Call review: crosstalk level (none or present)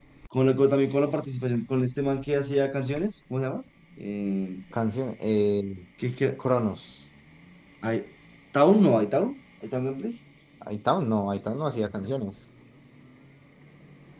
none